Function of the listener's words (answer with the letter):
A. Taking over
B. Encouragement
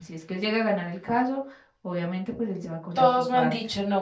A